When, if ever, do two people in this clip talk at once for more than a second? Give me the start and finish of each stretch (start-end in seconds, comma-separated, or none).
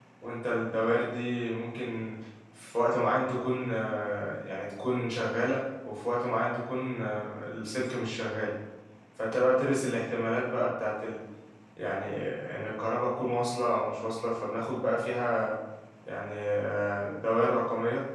none